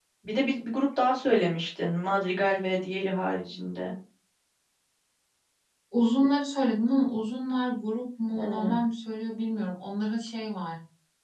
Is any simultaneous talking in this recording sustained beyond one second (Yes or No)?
No